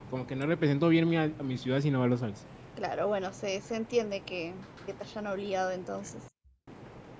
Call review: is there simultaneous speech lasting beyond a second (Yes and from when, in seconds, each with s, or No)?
No